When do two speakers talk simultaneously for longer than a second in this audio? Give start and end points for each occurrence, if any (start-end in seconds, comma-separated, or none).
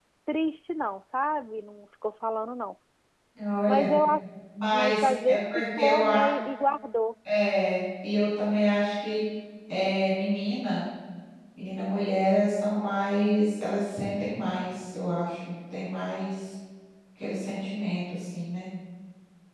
4.7-6.3